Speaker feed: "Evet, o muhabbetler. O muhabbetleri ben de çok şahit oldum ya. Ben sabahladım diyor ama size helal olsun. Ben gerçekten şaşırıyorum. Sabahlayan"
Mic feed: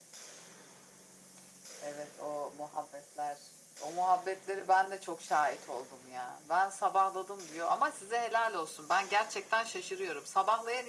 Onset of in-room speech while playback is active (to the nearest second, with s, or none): none